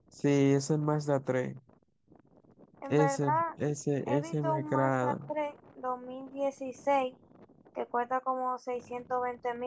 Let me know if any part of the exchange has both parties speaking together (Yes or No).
Yes